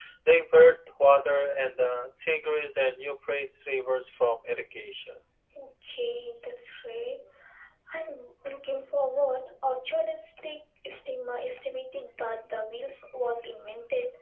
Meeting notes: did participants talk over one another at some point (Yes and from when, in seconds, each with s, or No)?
No